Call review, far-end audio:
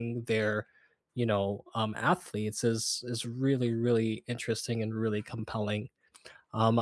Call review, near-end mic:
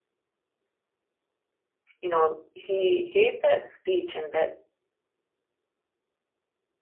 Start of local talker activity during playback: 2.0 s

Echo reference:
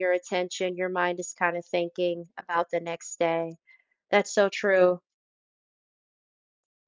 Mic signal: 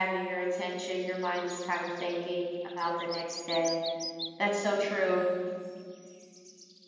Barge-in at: none

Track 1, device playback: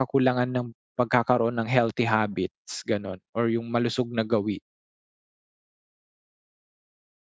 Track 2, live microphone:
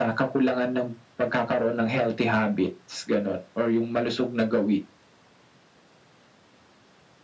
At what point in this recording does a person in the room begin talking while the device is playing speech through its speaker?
none

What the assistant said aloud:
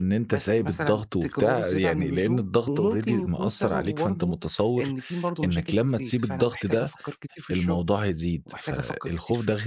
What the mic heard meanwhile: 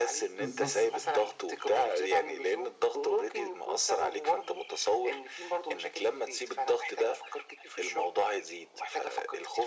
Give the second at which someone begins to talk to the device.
0.4 s

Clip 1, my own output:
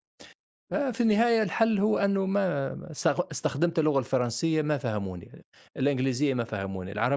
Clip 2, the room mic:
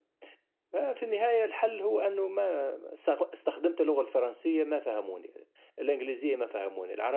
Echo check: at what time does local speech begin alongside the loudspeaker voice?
none

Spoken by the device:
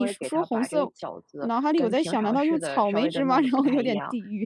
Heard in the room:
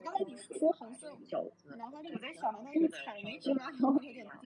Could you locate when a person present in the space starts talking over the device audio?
none

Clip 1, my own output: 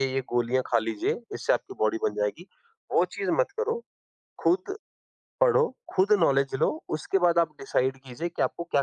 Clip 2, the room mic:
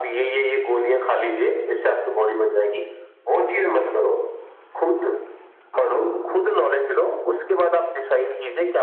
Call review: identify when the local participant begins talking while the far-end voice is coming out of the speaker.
5.7 s

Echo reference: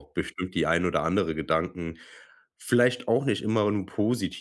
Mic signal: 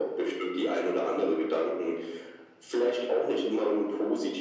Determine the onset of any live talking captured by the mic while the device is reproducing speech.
none

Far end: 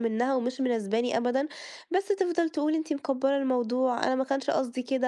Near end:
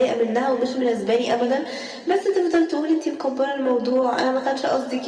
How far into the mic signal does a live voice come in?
none

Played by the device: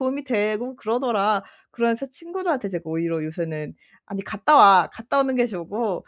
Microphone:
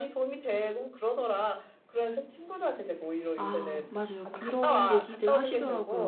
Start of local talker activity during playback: 3.4 s

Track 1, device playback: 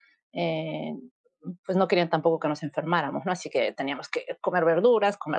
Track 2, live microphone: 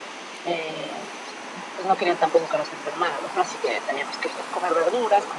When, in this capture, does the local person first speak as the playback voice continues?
none

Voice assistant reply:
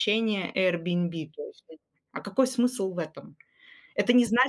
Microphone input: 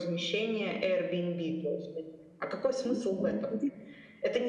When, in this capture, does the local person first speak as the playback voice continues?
2.9 s

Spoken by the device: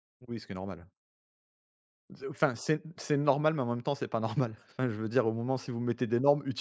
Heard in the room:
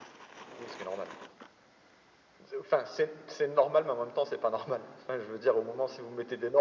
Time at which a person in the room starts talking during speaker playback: none

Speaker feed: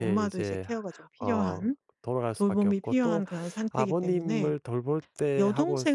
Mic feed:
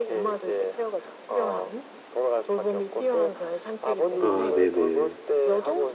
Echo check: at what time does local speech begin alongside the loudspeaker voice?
4.2 s

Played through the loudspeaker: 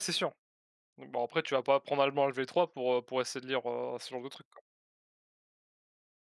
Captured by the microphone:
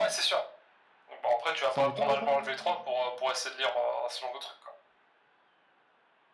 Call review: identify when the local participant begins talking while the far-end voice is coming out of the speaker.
1.7 s

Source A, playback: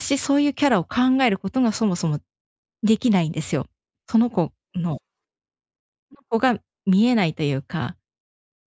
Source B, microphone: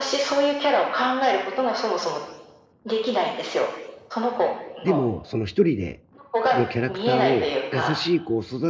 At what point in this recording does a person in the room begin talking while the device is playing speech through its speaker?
4.8 s

